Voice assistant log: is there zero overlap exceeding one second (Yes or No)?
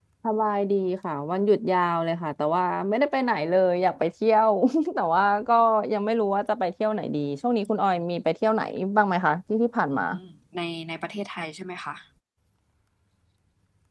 Yes